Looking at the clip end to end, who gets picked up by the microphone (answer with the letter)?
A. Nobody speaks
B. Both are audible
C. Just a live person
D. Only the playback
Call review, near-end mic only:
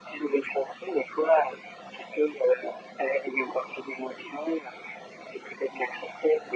D